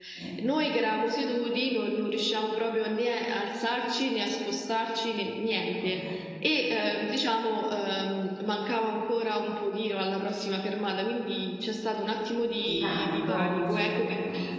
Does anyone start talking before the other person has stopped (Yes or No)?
Yes